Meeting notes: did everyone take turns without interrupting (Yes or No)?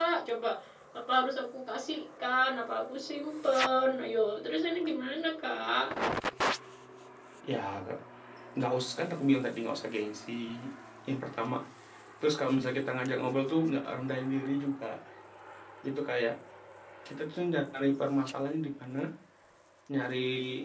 Yes